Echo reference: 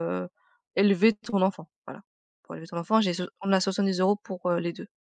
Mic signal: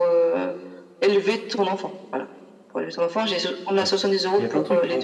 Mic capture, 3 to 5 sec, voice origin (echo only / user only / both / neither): both